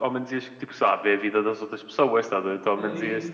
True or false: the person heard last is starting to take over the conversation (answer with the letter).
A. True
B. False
A